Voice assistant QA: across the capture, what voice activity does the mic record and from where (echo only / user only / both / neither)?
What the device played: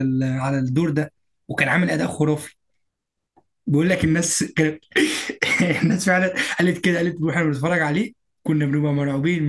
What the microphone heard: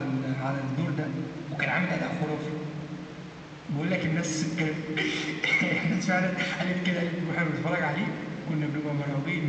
echo only